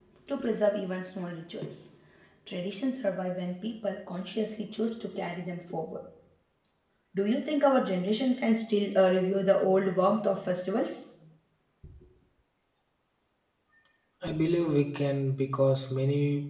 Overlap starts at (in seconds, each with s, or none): none